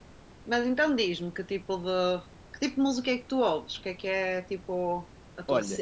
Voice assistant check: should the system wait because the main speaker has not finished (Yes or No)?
No